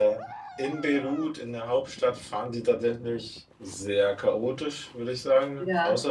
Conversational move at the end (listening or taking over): listening